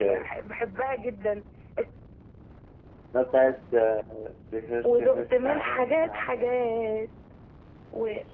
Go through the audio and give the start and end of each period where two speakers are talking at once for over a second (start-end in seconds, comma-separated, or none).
4.8-6.6